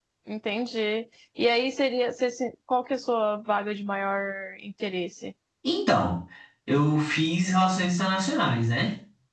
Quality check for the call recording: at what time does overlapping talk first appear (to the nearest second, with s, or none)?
none